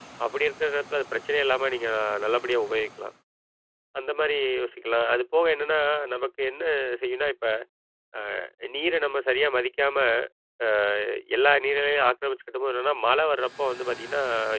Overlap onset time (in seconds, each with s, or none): none